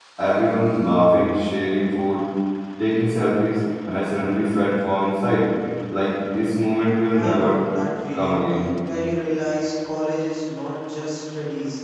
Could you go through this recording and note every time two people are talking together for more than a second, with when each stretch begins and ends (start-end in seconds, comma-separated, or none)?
none